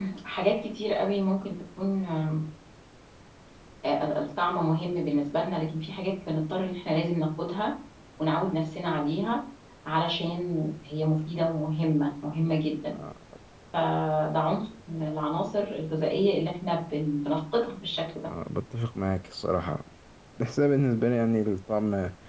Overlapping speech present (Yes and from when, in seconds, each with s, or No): No